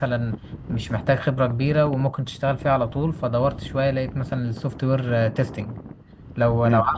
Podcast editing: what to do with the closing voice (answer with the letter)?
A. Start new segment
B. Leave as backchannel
B